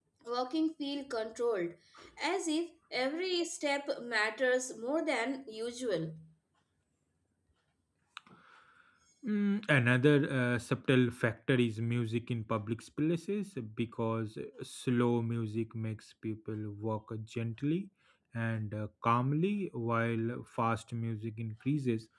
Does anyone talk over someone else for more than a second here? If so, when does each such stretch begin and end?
none

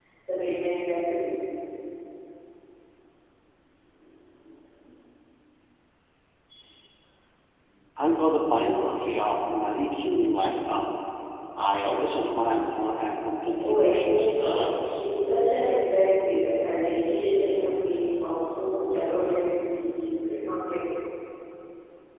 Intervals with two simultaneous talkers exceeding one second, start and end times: 13.6-15.0

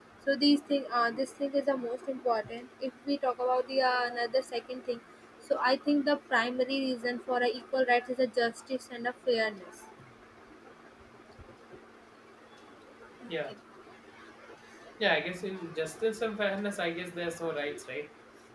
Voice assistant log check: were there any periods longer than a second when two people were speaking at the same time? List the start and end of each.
none

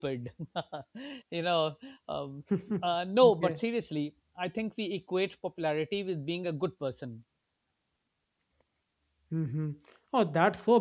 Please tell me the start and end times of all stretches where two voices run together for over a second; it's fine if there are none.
none

